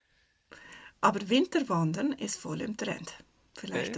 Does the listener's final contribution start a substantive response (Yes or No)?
No